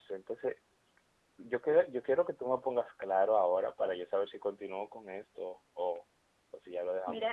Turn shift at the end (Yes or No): Yes